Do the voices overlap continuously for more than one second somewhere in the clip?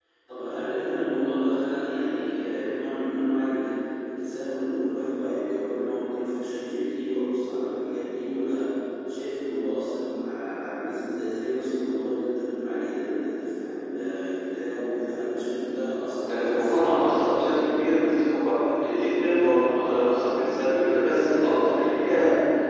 Yes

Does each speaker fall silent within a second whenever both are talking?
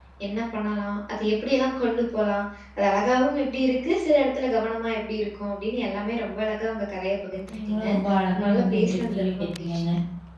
No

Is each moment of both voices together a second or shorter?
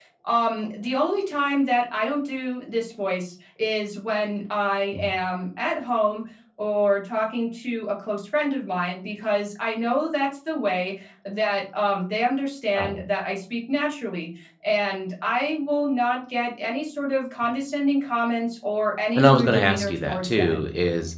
No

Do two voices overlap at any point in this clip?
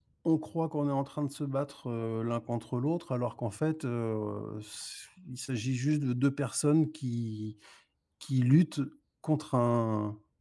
No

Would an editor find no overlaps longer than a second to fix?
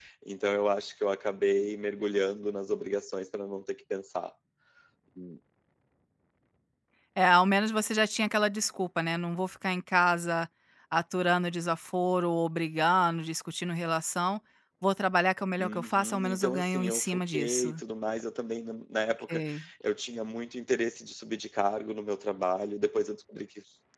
No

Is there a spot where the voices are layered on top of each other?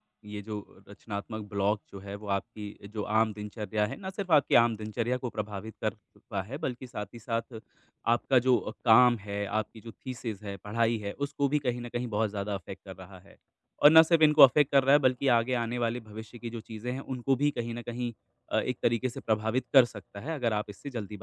No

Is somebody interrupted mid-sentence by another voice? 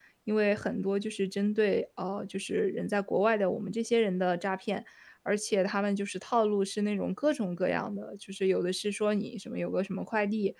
No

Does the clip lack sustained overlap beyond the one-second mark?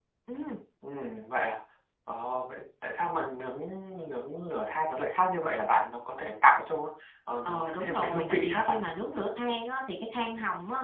No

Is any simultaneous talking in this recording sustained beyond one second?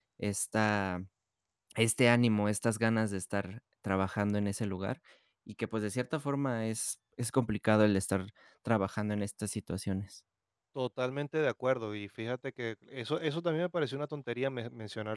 No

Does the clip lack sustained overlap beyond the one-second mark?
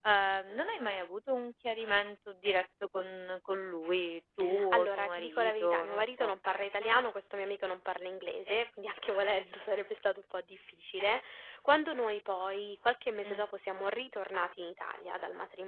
No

